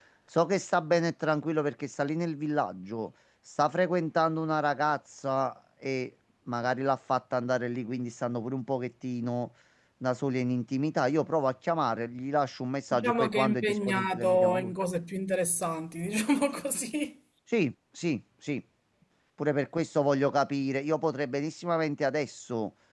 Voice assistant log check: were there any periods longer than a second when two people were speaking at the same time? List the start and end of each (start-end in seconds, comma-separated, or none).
12.9-14.7